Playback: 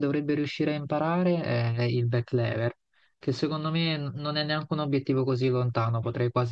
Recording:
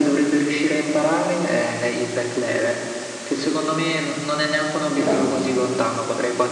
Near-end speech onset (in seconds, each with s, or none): 4.9 s